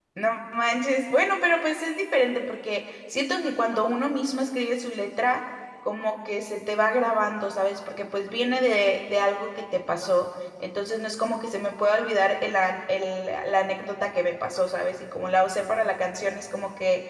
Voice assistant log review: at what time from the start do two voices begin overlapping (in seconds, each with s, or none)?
none